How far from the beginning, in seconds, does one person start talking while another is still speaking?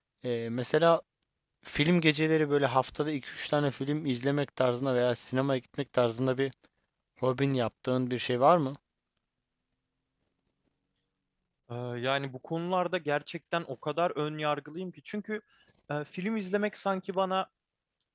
none

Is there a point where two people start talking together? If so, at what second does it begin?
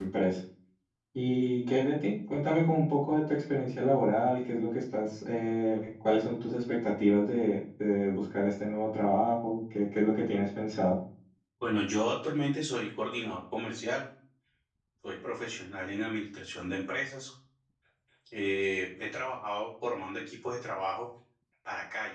none

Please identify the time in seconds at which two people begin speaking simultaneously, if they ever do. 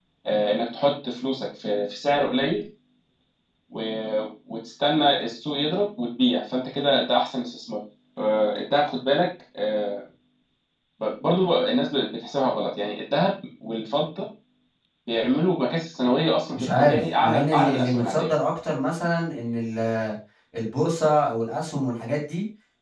16.5 s

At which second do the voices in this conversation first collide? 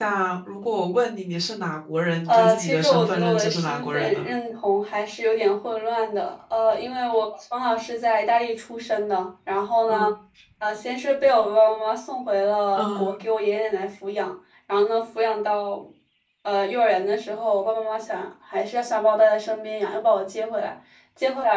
2.3 s

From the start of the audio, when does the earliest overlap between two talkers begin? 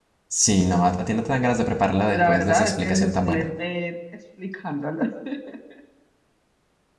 2.1 s

